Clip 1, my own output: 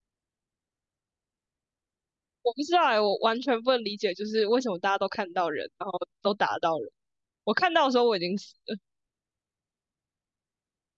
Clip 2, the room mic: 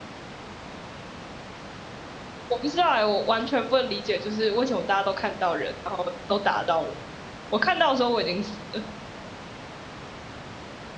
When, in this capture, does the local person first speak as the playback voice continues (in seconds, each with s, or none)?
none